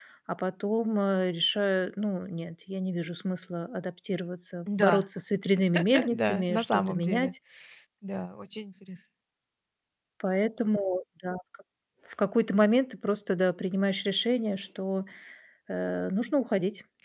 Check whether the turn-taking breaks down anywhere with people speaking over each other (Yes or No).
Yes